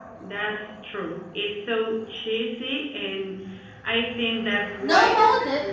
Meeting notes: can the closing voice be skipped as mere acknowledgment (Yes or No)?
No